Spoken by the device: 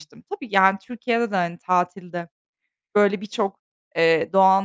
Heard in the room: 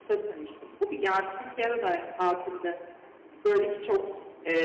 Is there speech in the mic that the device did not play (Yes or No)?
No